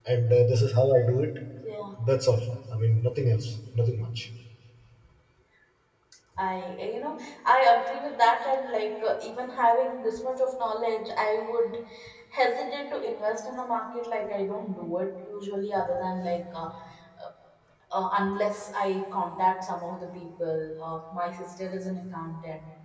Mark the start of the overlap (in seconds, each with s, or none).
none